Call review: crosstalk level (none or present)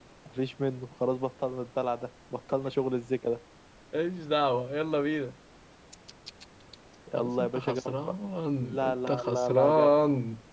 present